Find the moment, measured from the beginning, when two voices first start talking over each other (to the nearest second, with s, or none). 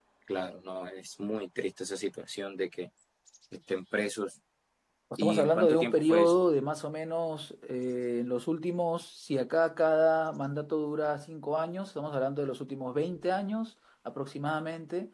5 s